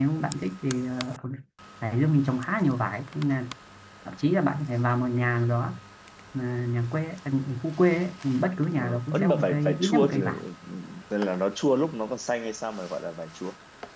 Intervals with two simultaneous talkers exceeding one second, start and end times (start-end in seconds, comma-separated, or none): 8.8-10.2